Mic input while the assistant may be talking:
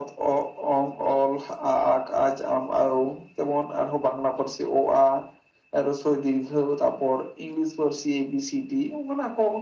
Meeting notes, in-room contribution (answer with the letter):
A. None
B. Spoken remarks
A